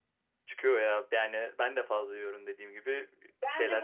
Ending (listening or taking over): taking over